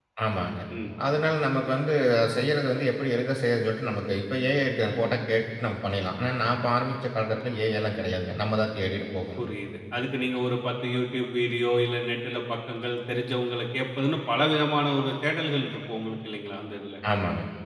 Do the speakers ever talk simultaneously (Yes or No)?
No